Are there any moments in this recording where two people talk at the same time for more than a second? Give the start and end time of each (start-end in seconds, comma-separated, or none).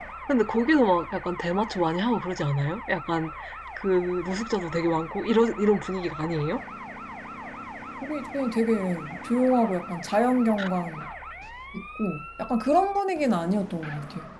none